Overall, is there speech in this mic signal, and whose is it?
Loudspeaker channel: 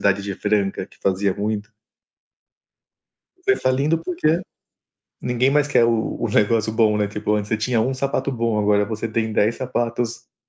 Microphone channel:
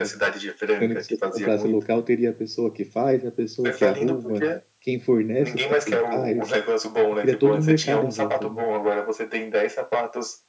both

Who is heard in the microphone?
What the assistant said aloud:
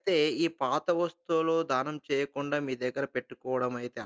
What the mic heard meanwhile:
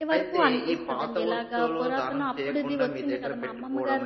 both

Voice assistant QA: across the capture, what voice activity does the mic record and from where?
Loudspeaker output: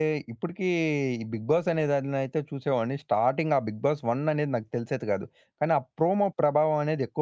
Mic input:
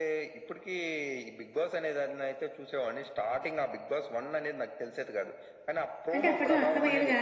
both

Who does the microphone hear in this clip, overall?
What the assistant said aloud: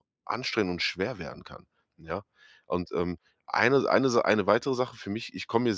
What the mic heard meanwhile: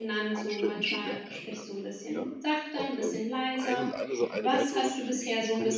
both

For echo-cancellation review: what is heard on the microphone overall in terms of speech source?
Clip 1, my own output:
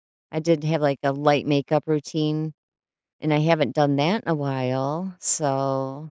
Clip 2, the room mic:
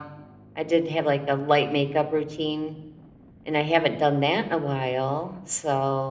echo only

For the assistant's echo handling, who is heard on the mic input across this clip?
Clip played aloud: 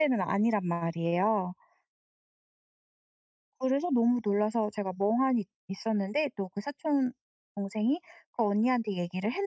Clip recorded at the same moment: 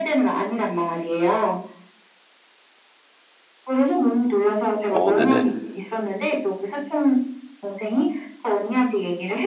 both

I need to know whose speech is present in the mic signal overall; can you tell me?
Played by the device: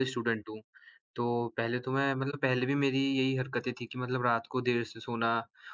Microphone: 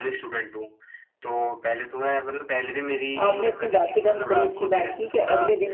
both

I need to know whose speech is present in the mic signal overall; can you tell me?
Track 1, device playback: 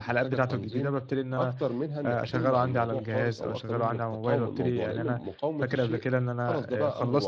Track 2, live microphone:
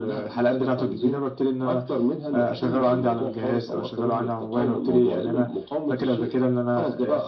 echo only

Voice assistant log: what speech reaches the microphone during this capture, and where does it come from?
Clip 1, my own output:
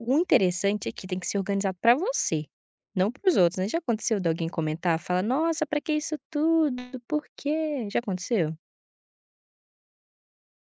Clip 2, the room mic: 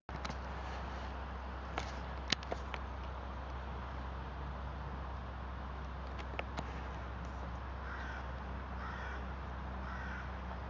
neither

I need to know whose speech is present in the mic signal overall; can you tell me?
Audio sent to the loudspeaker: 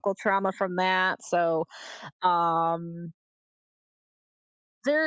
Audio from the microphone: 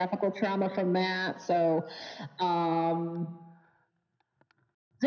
echo only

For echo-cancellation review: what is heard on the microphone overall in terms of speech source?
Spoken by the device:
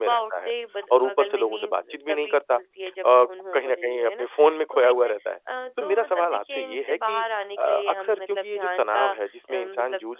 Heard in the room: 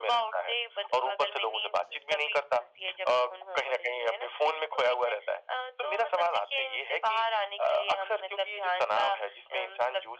echo only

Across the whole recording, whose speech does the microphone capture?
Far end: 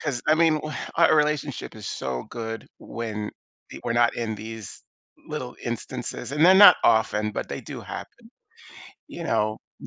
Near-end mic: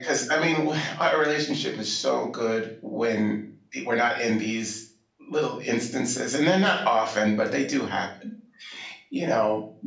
echo only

